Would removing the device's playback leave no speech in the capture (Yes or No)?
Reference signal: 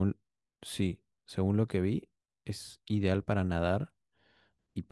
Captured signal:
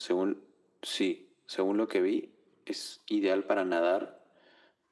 Yes